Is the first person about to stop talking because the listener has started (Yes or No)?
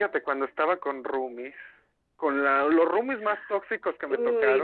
No